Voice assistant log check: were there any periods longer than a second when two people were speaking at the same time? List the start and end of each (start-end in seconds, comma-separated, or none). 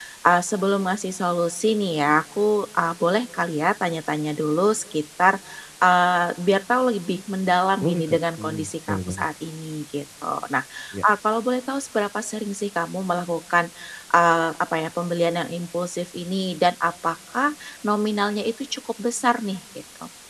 7.8-9.2